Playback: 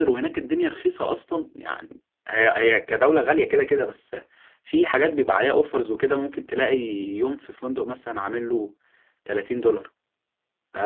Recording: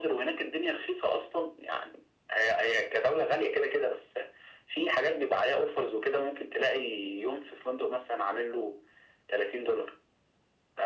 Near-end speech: none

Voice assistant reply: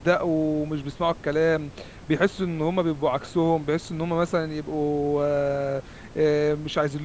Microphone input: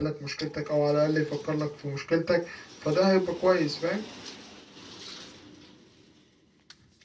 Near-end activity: present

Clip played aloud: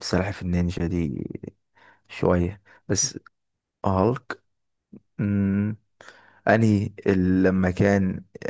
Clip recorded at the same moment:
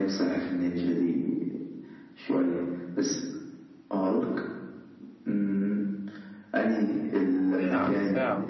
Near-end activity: present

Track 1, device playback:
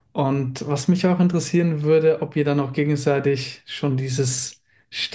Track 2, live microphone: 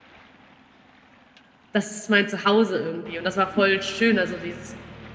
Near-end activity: present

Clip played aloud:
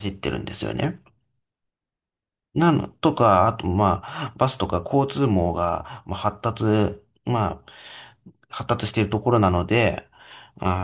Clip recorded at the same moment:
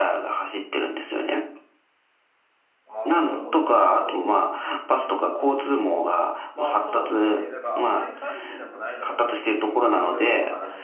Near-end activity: present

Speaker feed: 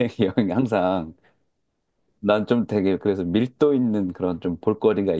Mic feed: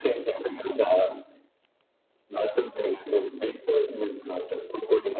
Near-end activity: none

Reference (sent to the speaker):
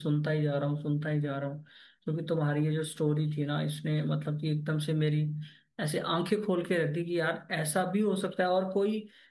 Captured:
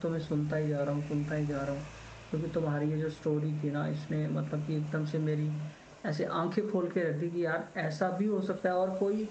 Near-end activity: none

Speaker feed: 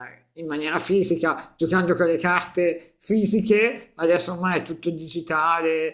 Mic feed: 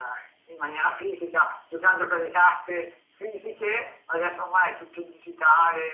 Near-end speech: none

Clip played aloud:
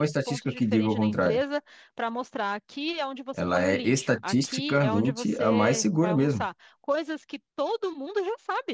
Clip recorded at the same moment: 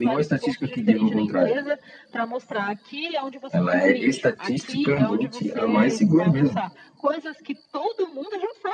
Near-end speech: none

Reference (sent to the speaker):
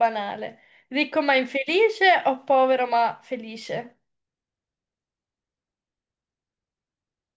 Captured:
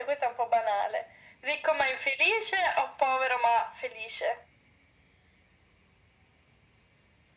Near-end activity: none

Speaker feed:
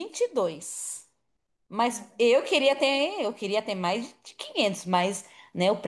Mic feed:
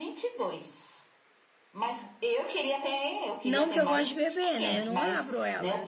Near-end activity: present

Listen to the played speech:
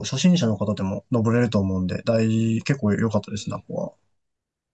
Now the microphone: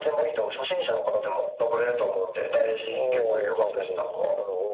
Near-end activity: present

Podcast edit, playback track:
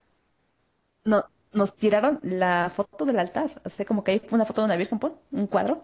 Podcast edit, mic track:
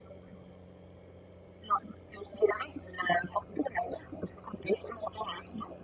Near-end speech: none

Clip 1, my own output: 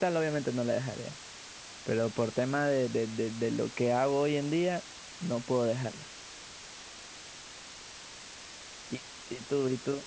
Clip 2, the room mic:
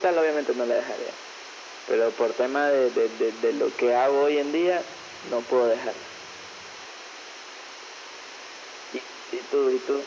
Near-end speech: none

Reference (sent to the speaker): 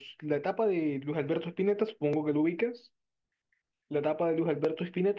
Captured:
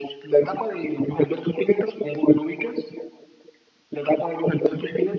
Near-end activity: none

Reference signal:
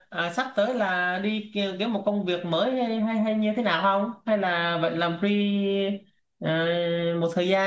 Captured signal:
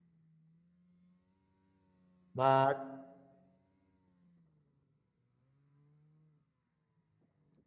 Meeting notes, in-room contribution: present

